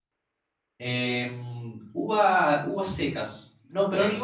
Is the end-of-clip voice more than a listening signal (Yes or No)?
No